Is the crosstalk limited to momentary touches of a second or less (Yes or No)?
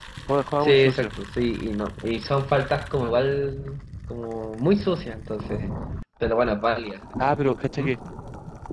Yes